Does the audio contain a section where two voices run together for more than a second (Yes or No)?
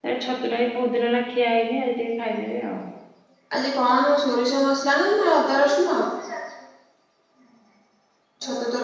No